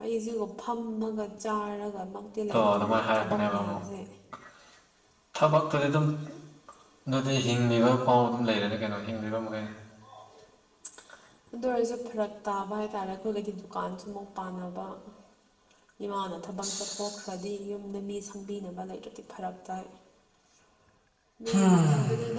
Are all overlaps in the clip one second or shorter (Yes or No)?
No